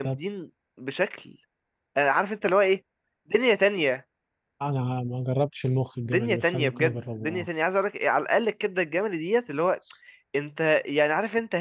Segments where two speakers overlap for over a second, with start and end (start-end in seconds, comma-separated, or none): 6.0-7.5